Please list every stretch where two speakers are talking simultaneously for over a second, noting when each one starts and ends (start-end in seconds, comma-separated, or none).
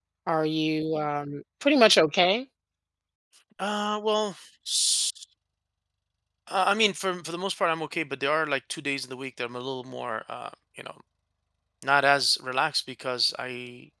none